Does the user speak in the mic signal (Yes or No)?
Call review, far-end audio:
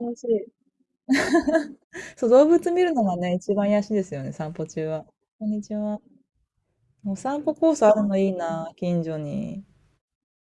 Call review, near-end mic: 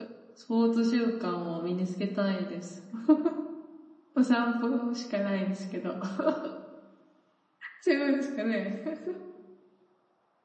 Yes